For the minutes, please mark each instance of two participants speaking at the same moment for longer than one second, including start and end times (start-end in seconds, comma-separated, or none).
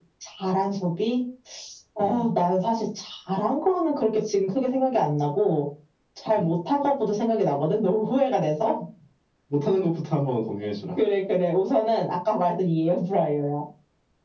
none